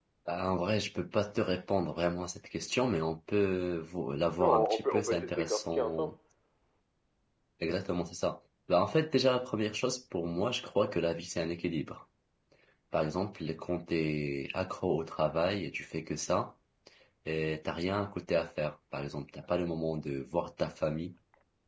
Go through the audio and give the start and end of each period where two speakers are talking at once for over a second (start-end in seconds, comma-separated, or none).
4.4-6.1